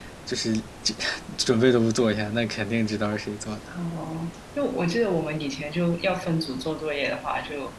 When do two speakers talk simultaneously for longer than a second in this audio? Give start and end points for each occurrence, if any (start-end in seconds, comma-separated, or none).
none